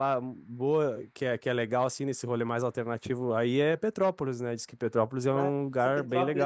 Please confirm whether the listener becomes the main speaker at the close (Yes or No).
Yes